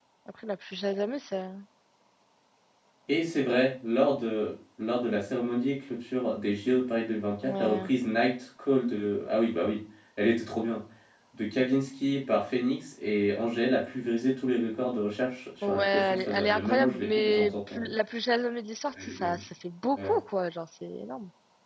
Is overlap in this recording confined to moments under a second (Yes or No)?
No